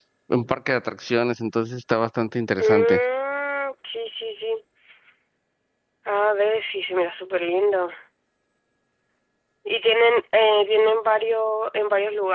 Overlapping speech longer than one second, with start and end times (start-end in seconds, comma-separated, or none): none